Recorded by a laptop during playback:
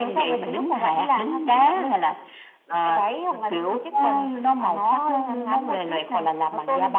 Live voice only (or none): none